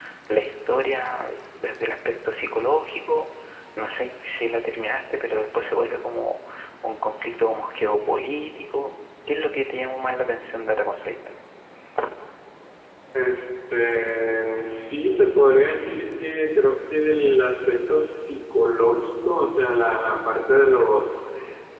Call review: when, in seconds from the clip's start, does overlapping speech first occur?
none

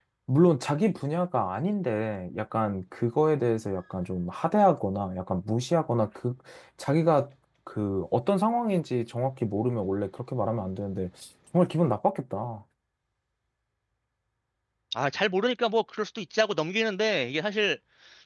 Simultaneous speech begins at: none

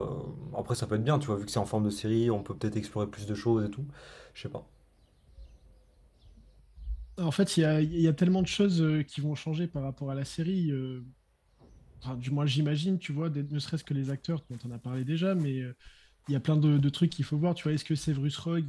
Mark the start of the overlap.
none

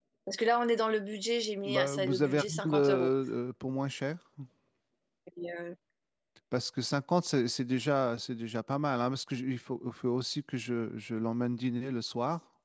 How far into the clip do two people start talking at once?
1.6 s

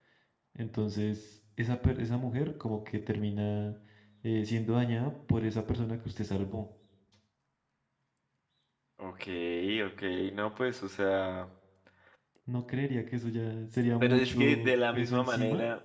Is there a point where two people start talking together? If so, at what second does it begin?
14.0 s

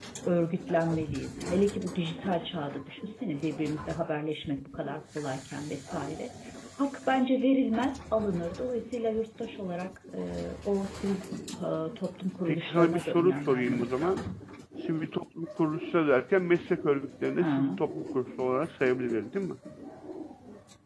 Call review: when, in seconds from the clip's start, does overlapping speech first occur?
12.5 s

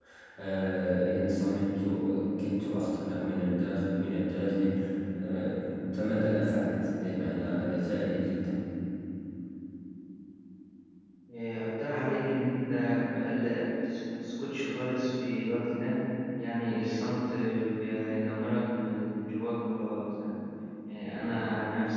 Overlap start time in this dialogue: none

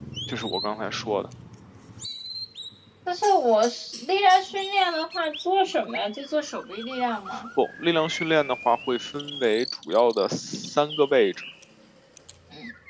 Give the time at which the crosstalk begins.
none

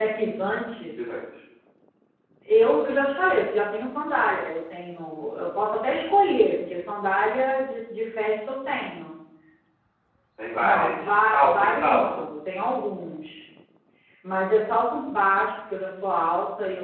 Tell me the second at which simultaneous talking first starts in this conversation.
10.6 s

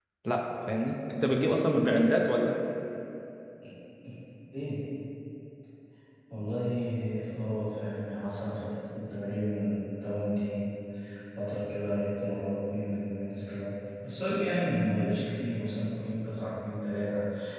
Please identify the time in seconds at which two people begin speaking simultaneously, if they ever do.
none

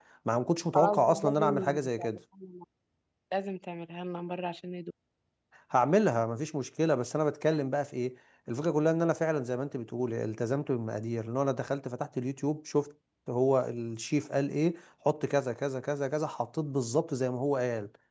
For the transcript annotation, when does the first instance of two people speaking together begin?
0.7 s

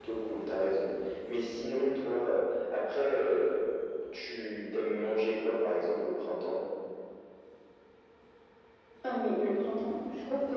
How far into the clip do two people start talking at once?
none

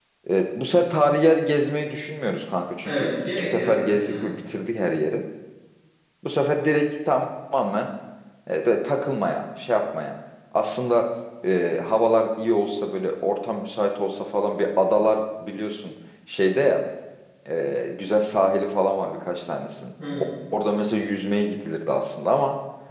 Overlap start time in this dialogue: 2.8 s

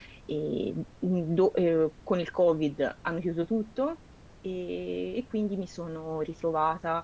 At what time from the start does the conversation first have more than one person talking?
none

